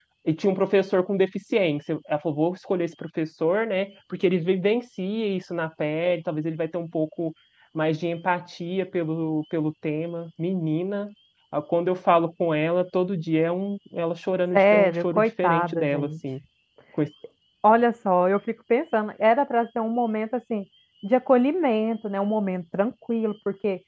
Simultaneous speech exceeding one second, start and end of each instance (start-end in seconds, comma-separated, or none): 14.5-16.1